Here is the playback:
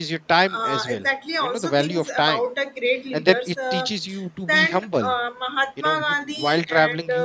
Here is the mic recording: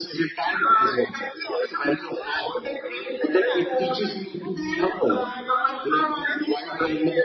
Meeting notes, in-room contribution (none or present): present